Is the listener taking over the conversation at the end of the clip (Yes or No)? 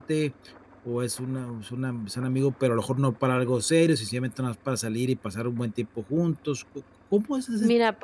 Yes